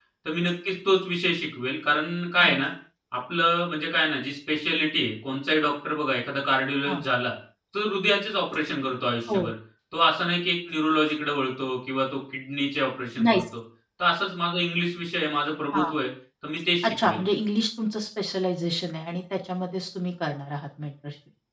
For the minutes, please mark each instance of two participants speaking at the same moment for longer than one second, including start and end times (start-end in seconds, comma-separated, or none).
none